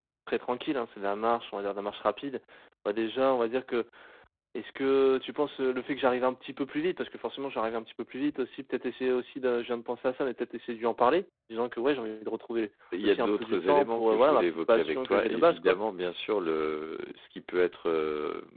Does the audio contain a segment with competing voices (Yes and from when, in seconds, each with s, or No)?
Yes, from 12.9 s